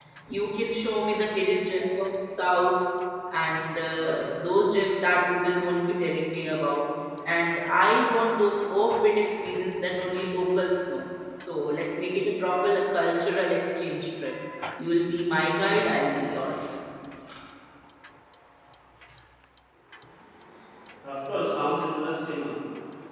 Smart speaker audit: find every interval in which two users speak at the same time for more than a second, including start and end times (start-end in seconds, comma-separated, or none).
none